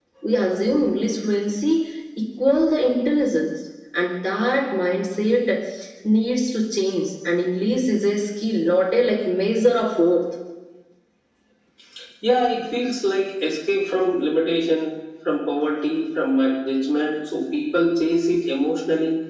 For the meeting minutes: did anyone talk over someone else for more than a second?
No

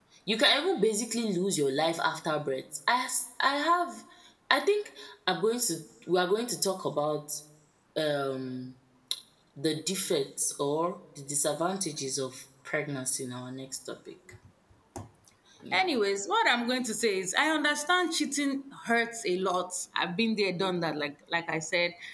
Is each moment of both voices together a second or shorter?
Yes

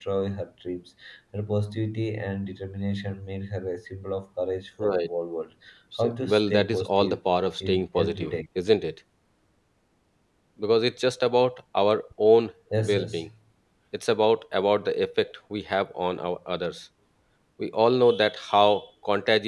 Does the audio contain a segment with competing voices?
Yes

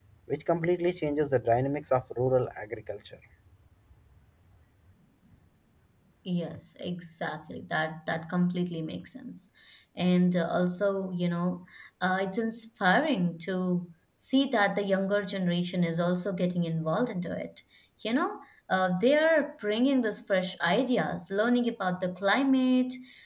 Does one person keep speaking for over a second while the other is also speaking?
No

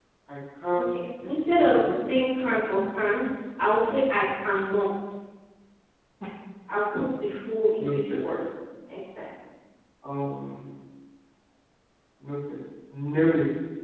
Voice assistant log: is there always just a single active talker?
No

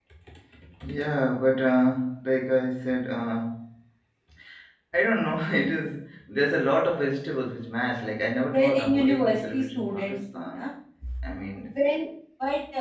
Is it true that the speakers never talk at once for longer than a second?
No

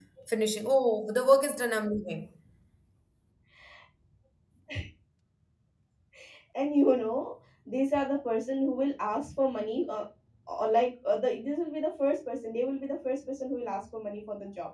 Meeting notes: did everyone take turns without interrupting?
Yes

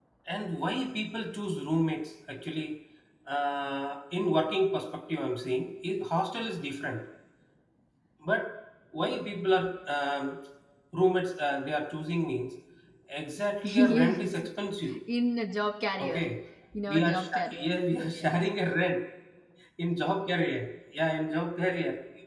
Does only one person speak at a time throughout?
No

